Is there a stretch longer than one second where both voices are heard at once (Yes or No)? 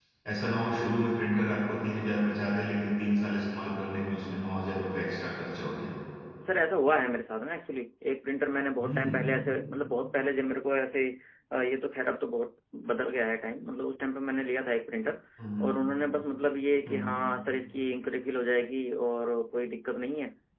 No